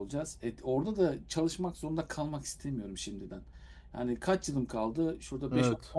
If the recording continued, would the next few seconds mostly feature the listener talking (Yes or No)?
No